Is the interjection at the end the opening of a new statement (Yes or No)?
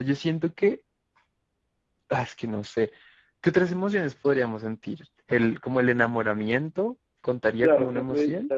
Yes